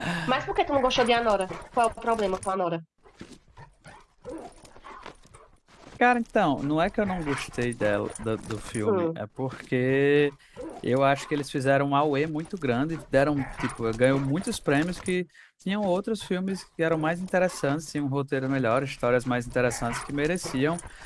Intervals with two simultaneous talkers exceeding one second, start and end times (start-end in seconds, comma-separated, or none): none